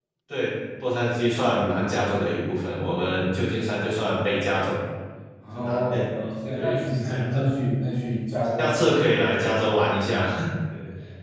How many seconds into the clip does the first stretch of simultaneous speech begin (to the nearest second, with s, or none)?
6 s